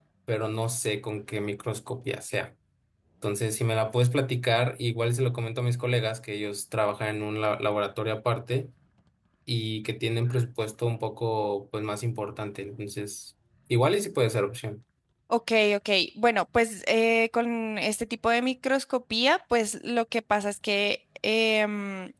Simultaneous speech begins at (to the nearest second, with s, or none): none